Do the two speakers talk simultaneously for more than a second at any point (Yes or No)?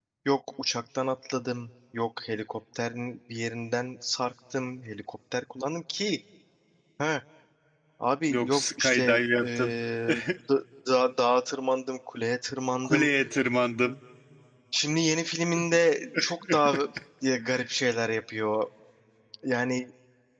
Yes